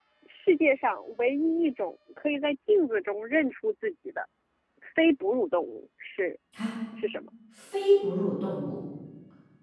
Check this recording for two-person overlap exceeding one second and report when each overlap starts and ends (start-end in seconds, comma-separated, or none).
none